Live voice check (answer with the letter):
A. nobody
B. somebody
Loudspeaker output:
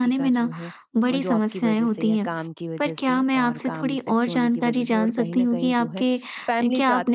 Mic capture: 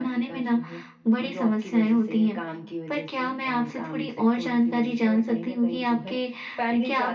A